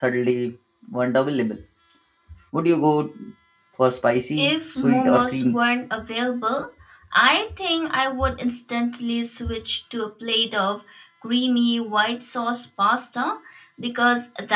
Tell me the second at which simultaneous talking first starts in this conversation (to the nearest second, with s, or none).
4 s